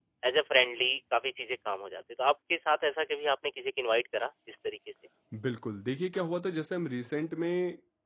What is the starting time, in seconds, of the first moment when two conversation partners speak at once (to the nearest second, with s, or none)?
none